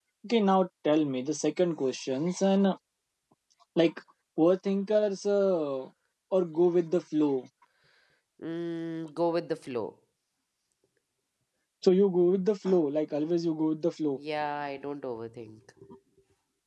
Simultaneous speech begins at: none

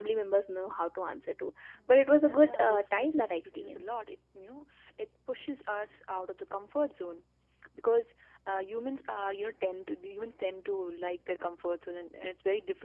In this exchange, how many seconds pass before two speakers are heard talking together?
2 s

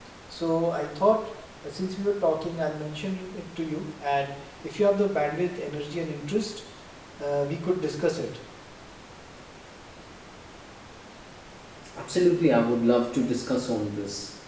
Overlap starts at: none

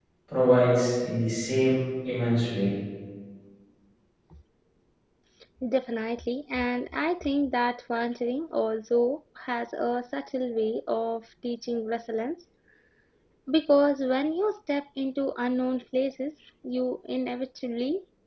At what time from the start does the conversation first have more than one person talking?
none

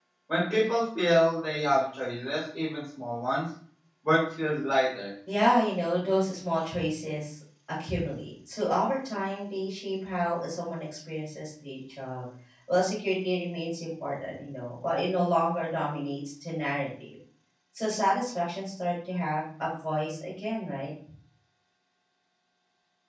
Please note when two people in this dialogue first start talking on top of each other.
none

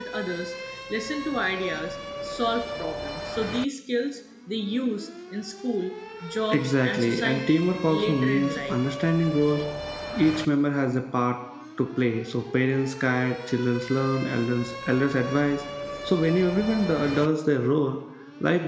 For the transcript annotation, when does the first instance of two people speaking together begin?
7 s

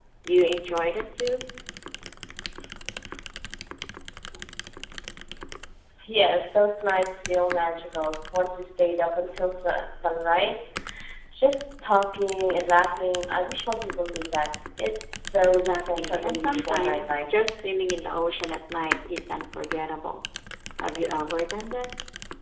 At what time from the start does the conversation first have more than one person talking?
15 s

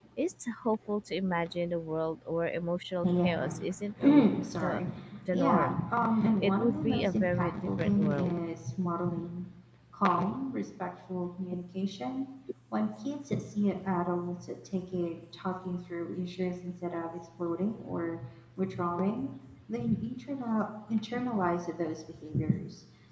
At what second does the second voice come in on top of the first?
3 s

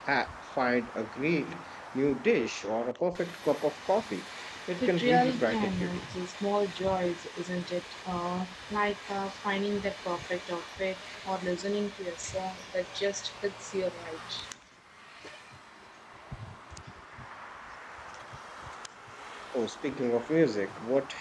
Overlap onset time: 5 s

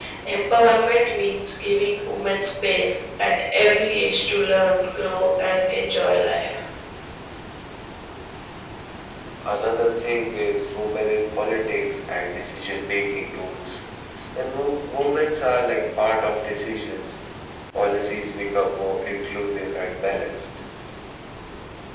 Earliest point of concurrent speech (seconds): none

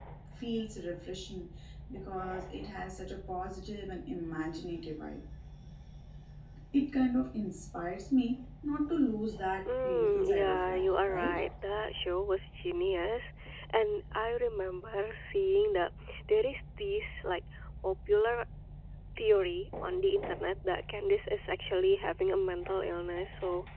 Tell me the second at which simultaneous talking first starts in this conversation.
10 s

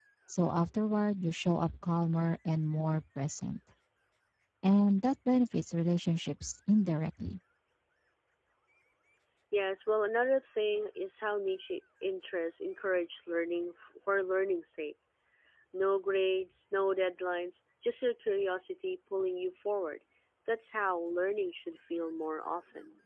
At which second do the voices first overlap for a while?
none

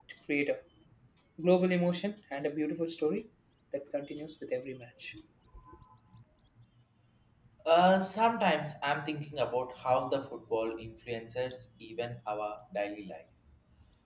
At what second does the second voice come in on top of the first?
none

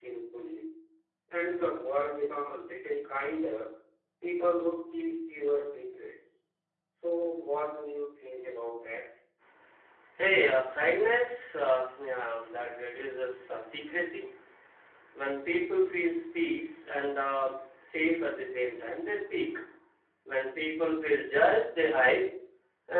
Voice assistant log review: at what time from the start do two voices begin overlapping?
none

